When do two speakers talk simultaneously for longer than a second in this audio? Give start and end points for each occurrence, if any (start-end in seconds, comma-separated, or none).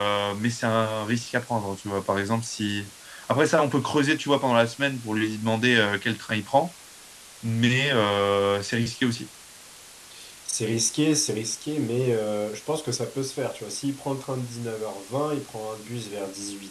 none